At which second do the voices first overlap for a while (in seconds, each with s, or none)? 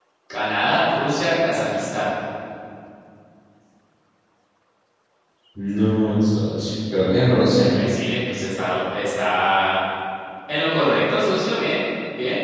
none